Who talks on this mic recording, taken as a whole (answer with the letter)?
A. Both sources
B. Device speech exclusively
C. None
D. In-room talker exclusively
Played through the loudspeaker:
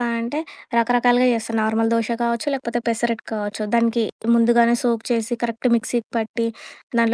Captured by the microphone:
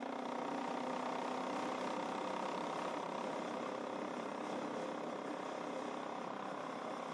C